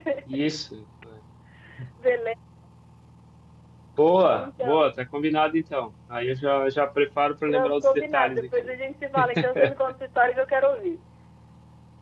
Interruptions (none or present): present